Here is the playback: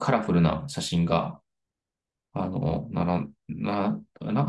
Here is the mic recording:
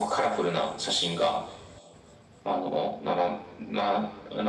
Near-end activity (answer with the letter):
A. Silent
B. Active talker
A